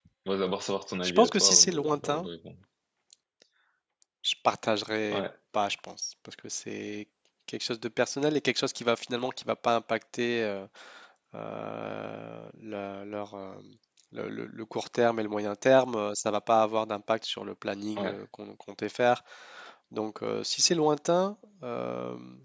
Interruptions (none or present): present